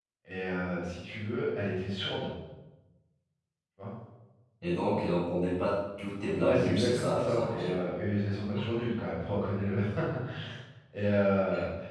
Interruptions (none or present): present